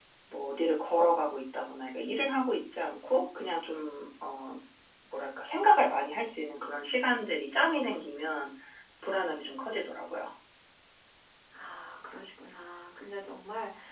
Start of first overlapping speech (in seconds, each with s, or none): none